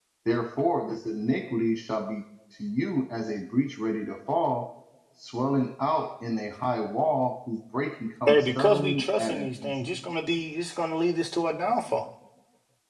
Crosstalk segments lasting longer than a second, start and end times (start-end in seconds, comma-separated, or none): 8.3-9.7